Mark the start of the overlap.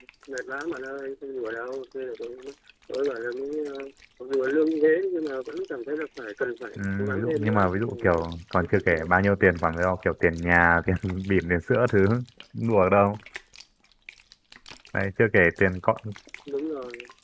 7 s

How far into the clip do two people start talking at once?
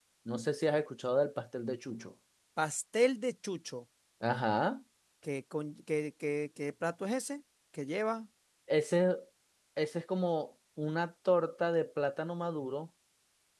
none

